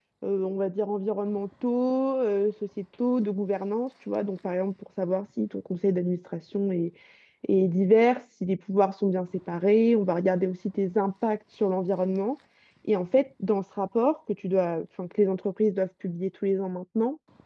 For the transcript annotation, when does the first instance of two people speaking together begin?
none

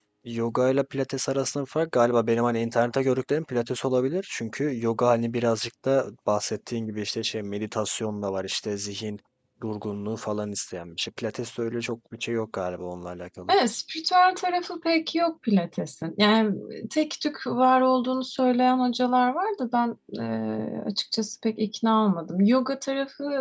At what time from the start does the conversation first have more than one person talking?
none

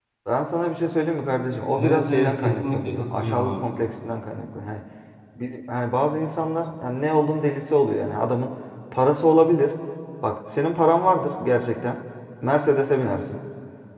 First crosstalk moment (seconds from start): 1.8 s

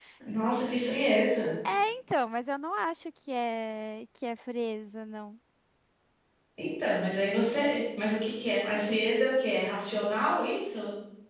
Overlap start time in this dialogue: none

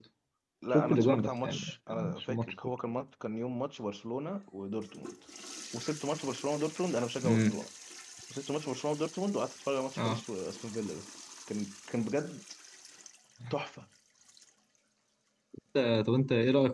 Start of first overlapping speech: 0.7 s

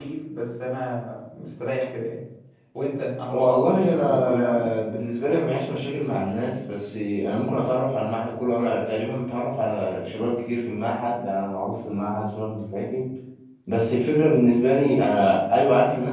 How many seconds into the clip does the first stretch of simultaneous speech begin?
3.3 s

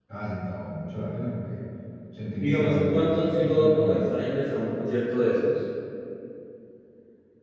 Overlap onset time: 2.3 s

